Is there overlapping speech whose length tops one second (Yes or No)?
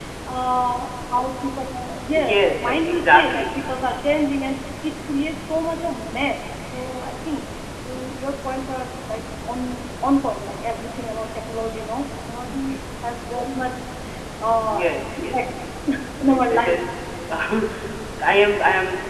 Yes